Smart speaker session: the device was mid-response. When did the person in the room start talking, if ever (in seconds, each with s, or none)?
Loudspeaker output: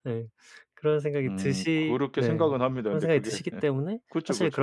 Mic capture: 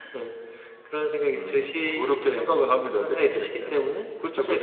none